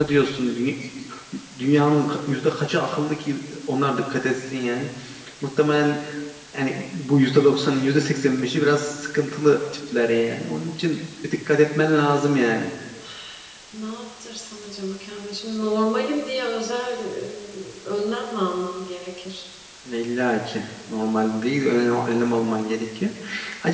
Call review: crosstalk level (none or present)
none